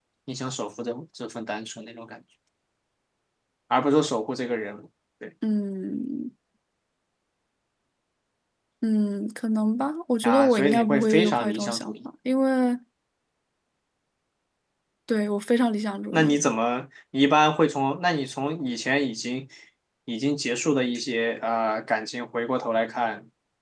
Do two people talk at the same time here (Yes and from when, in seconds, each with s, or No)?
Yes, from 10.2 s